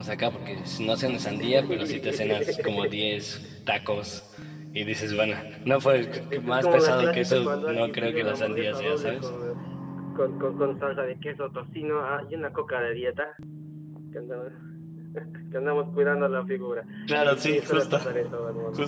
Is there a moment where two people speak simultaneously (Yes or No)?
Yes